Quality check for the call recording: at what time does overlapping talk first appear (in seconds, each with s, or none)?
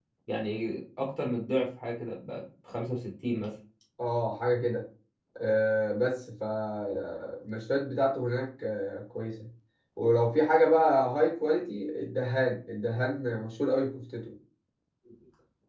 none